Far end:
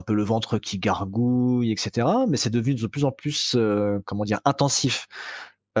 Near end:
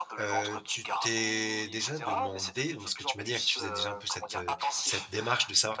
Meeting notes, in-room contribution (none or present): present